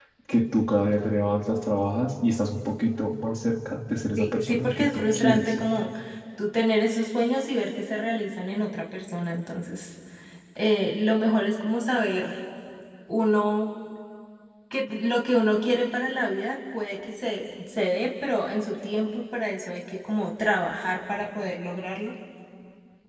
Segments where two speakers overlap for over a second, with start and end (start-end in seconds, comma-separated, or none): 4.2-5.7